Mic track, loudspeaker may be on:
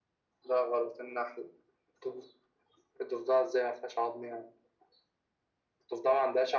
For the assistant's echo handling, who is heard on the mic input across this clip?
echo only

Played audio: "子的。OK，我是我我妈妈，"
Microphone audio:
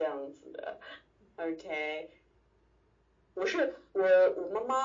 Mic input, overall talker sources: echo only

